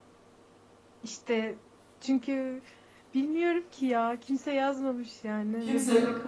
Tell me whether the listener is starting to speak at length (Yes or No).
Yes